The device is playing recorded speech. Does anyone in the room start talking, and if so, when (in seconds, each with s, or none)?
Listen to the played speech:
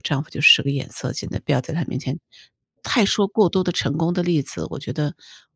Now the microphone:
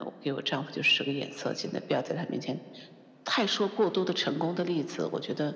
none